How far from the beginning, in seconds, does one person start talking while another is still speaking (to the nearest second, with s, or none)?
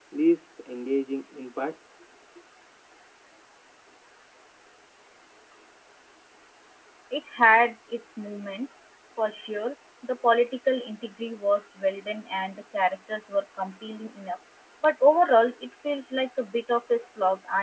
none